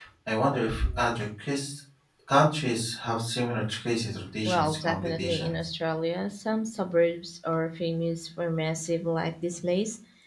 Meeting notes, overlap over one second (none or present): present